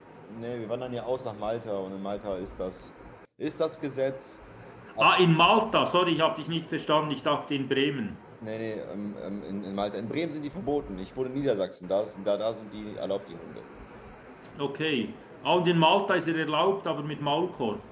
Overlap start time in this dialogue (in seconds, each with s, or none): none